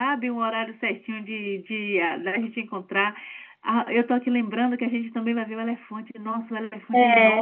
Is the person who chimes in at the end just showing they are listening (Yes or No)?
Yes